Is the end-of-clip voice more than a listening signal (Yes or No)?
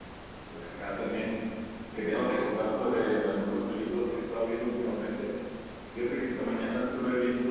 No